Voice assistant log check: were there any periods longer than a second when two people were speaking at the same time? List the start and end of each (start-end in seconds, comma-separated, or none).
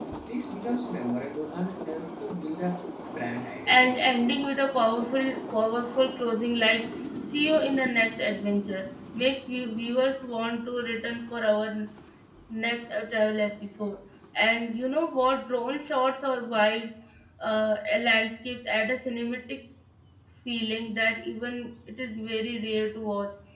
none